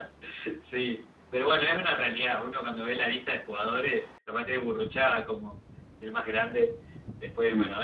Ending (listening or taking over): listening